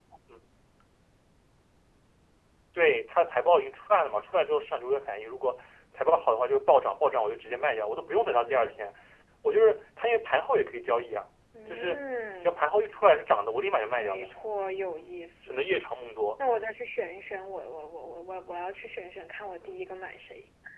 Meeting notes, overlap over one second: none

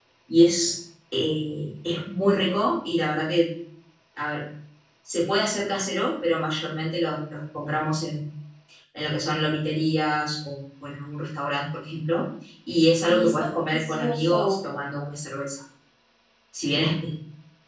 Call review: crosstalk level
present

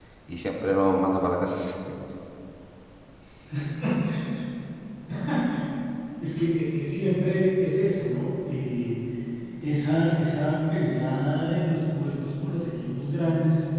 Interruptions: none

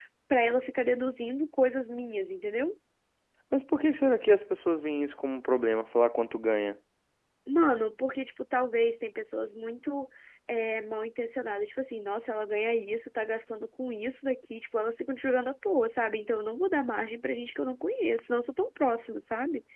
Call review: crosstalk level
none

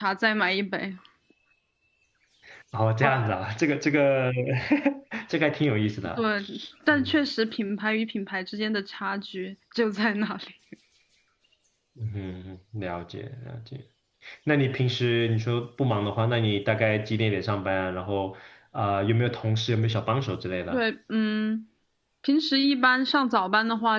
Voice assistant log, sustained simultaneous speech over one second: none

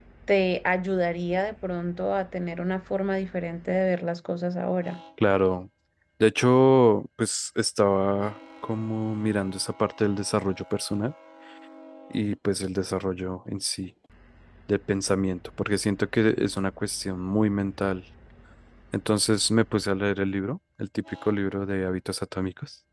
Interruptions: none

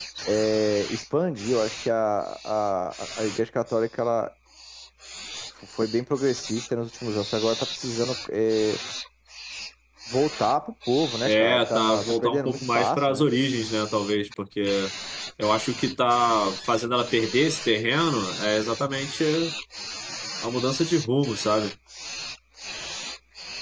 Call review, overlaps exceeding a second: present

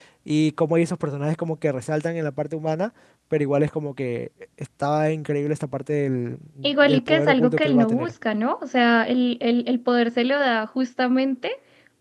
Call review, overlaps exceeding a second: present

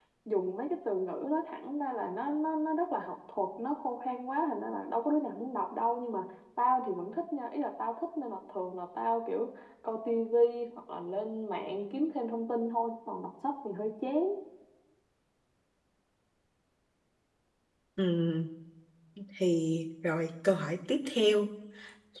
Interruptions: none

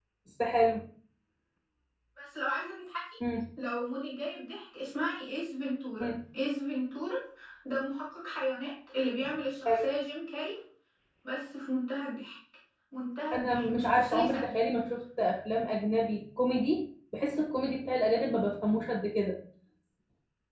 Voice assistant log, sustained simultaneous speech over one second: present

